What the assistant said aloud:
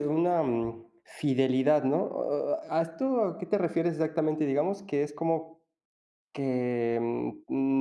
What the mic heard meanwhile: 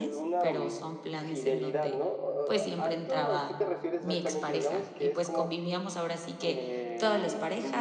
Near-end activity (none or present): present